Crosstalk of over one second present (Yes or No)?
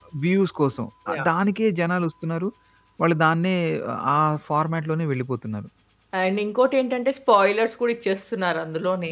No